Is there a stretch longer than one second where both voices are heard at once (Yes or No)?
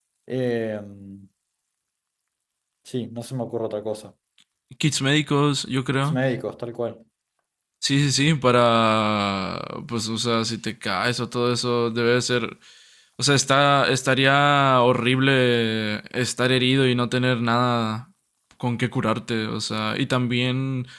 No